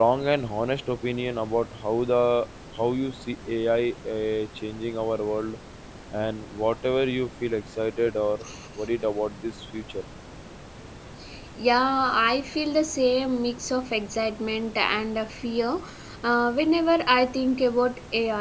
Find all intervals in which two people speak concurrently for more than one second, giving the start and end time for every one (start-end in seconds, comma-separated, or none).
none